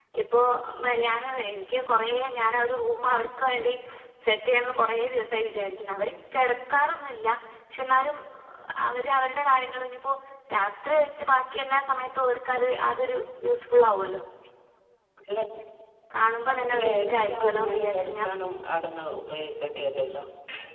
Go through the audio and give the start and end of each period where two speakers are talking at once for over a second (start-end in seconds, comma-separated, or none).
16.5-18.3